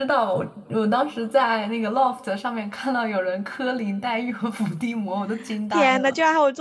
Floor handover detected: Yes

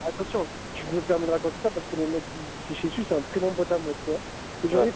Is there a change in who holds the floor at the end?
No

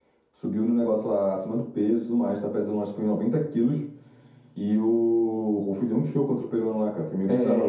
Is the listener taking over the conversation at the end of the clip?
Yes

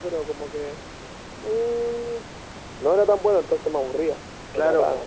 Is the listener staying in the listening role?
No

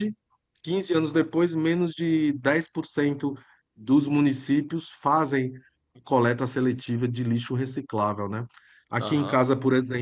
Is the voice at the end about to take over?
No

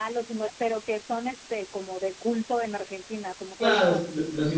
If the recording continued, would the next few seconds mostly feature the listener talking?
Yes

